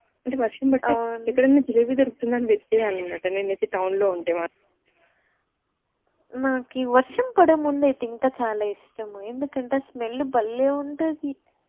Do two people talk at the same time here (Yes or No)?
No